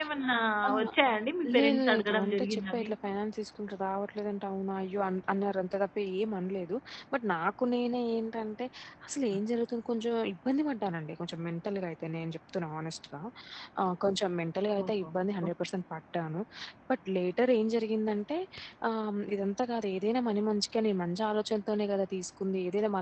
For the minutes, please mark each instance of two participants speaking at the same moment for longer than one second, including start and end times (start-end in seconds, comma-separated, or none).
1.6-2.9